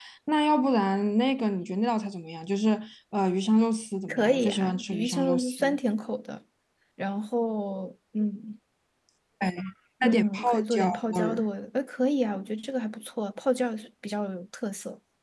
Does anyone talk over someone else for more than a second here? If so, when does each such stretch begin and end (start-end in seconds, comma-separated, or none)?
4.1-5.6, 10.0-11.5